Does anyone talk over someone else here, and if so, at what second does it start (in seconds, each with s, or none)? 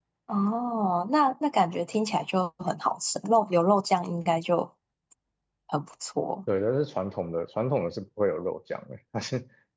none